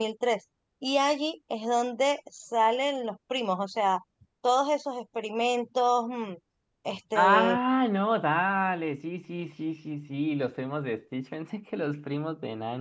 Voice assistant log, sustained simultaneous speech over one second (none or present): none